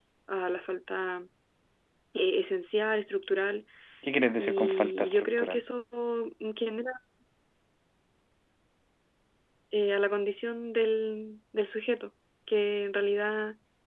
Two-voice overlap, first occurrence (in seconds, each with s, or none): 4.4 s